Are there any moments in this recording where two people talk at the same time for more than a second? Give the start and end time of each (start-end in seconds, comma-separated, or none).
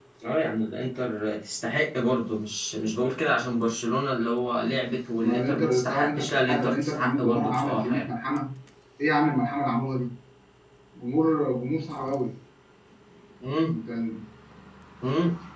5.2-8.1